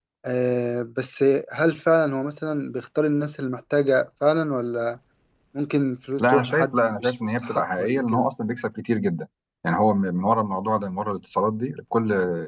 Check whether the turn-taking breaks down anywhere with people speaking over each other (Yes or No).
Yes